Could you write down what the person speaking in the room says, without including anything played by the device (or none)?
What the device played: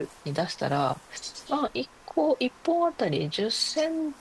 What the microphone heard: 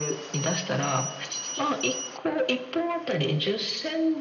none